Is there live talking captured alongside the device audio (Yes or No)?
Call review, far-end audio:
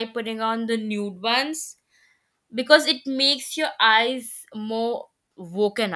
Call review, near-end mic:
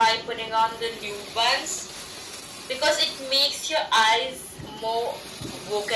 No